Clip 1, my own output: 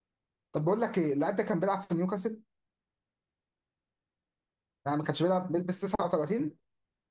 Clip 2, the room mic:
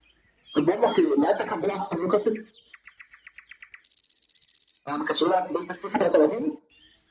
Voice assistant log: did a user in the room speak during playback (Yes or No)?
No